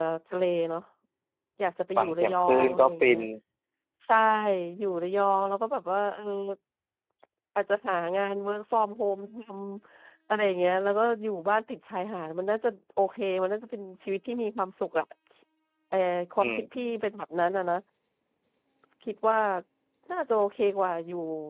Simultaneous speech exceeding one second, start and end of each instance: 2.0-3.2

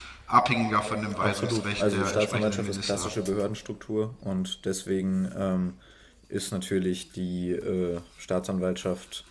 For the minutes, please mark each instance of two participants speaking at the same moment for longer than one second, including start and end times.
1.2-3.1

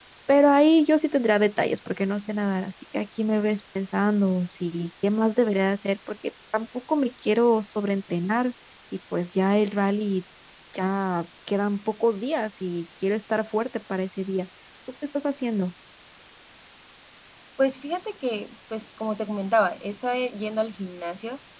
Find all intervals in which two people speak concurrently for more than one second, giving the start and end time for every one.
none

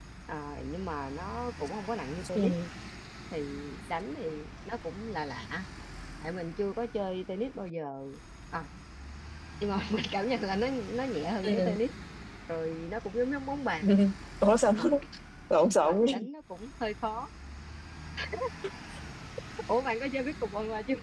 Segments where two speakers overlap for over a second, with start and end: none

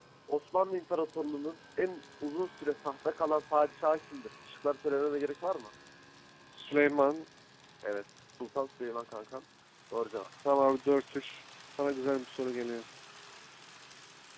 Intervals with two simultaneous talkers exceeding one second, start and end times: none

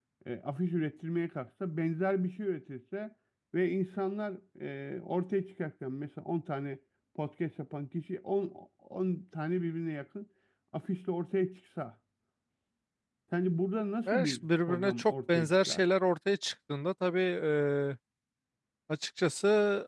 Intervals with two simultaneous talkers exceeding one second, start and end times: 14.1-15.8

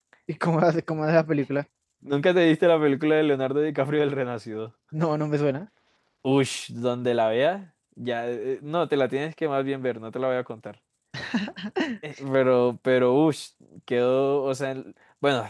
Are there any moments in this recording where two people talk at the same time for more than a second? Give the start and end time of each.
none

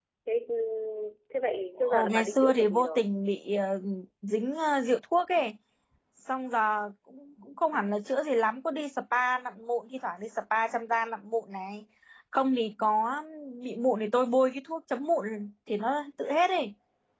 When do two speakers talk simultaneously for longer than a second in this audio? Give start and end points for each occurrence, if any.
1.8-3.0

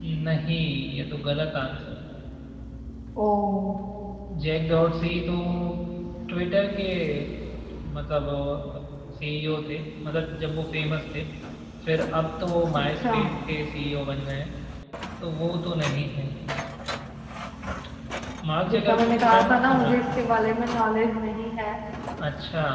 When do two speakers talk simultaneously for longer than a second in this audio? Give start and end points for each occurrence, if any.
18.7-20.2

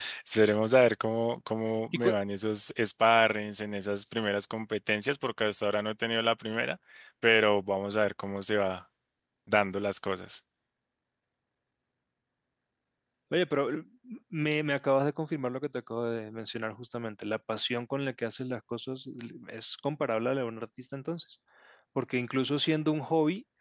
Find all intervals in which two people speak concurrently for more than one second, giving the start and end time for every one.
none

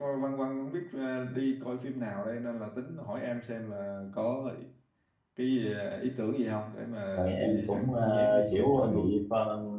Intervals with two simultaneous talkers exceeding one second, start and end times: 7.1-9.1

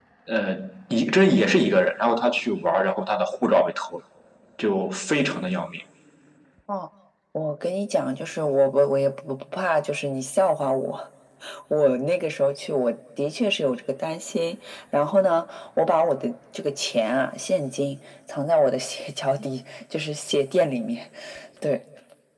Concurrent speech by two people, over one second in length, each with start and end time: none

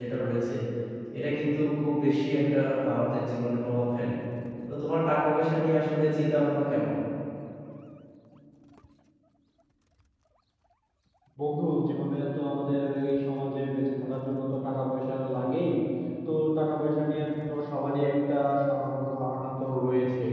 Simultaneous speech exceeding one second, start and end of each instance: none

